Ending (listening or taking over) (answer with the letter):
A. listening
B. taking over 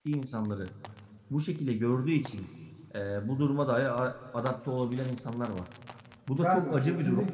B